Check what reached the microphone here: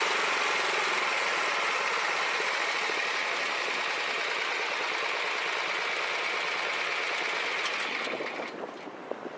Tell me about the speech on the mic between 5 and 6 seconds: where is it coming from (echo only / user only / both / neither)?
neither